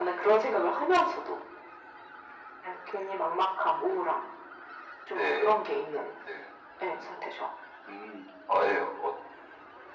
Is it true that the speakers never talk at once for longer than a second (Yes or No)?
Yes